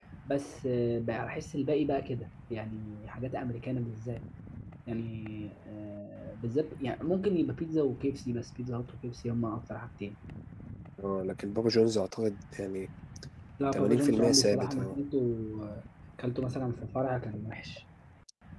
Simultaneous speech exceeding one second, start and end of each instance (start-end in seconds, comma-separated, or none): 13.7-15.0